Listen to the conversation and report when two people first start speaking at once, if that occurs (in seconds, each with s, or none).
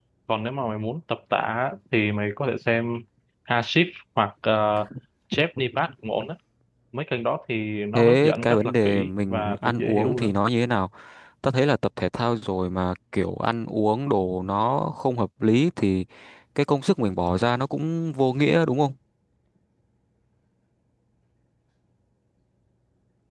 7.9 s